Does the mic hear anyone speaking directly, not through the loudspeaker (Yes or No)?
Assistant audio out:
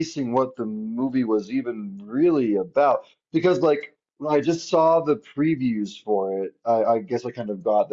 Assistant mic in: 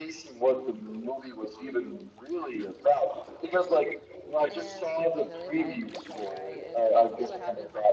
Yes